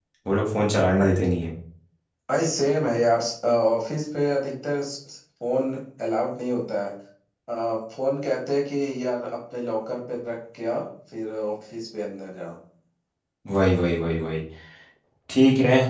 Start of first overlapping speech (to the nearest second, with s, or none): none